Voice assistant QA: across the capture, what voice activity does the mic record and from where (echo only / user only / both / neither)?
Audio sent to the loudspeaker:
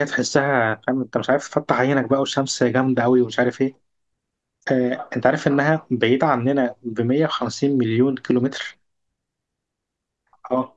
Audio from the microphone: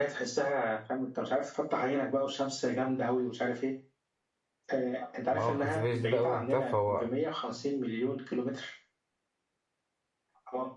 both